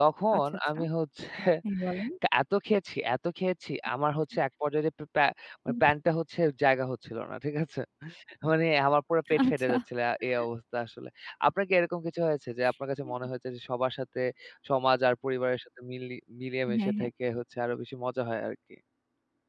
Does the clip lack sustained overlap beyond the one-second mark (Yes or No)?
Yes